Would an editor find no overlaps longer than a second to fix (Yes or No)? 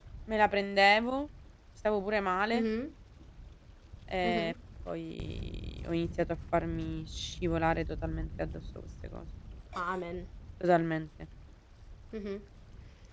Yes